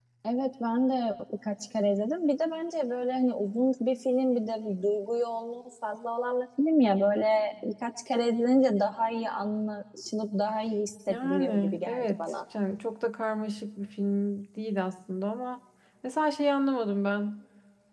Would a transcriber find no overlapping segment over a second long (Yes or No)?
No